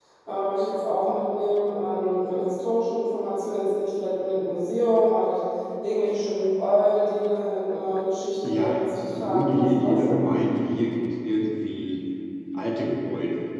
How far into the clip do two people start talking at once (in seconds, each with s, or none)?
8.4 s